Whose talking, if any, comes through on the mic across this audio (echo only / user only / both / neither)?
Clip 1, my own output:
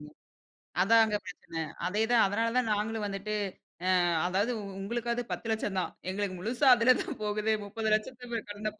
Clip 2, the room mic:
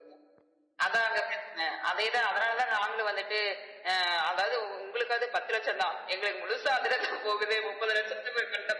echo only